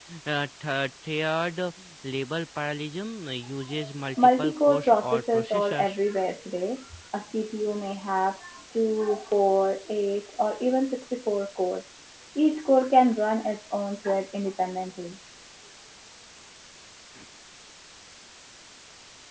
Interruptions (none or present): present